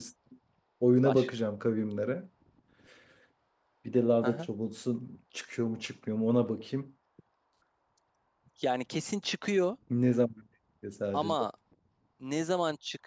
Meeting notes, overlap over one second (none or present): none